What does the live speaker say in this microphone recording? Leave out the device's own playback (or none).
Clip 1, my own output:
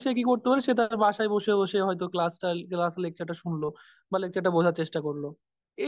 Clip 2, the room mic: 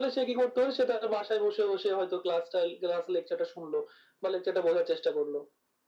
none